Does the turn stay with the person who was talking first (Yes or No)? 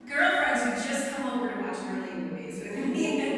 No